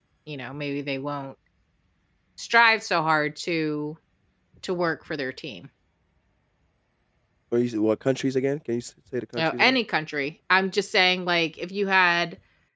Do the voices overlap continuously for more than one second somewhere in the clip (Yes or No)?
No